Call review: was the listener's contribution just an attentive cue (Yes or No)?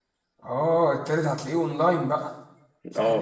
No